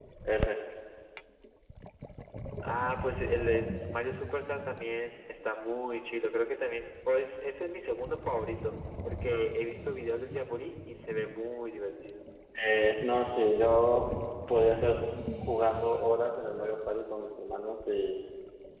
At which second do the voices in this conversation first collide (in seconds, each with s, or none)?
none